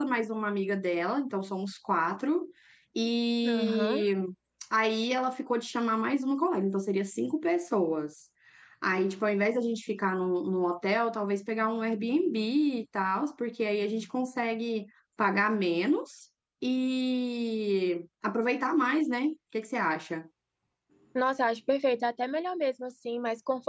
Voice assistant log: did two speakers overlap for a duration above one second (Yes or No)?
No